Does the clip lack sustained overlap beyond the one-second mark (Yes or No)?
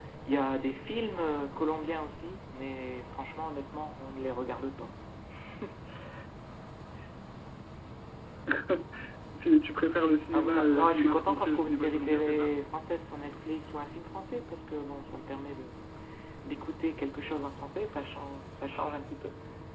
No